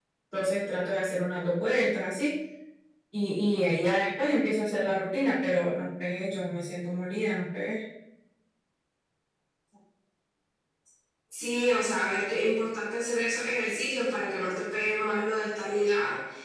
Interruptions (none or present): none